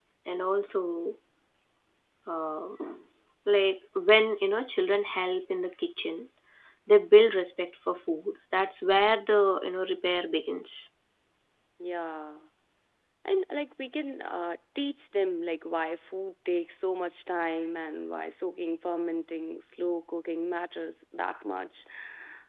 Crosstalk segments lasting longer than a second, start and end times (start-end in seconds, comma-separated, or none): none